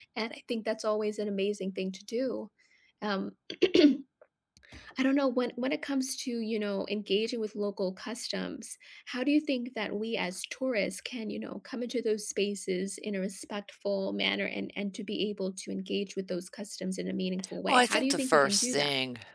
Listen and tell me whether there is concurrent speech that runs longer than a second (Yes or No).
Yes